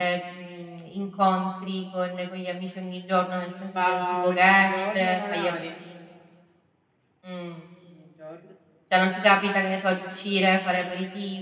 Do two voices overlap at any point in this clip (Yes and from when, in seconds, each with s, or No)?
Yes, from 3.8 s